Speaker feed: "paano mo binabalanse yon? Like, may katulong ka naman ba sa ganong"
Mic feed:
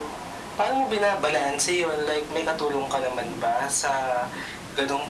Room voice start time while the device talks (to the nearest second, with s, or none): none